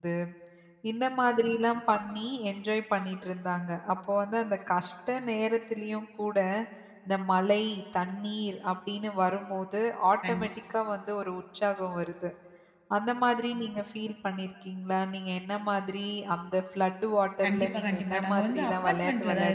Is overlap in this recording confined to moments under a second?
No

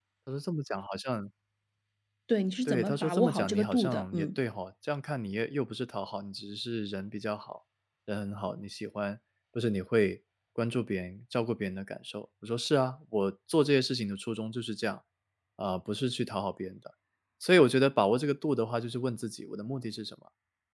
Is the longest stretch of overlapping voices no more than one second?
No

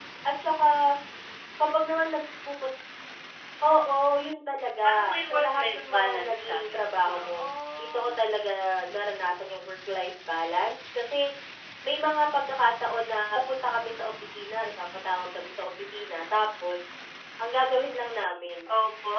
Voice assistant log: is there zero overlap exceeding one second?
No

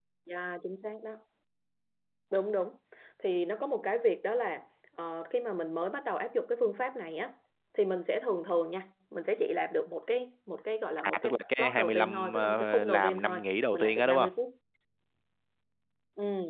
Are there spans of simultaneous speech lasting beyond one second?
Yes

